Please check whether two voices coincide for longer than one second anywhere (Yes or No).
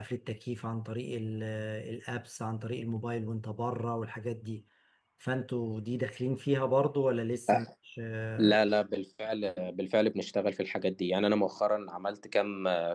No